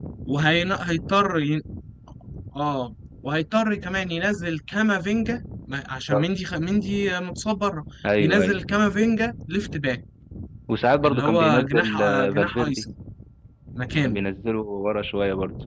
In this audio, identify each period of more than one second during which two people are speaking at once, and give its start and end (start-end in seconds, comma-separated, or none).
11.0-12.8